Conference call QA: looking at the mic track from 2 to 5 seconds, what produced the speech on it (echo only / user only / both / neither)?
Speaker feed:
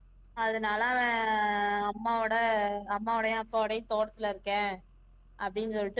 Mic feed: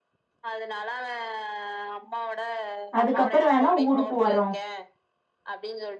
both